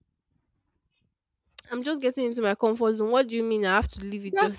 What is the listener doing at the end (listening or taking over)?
taking over